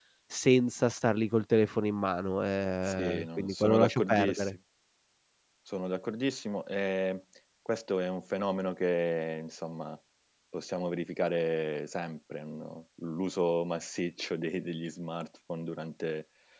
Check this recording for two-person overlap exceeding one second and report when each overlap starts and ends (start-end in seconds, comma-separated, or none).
2.9-4.6